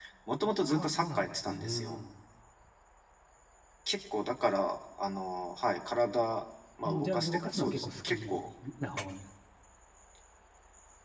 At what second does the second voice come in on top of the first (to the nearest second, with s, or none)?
1 s